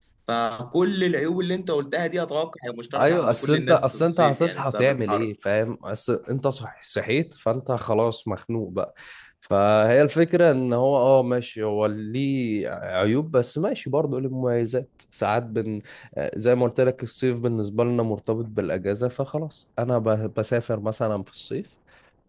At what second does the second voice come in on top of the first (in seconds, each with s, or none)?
2.9 s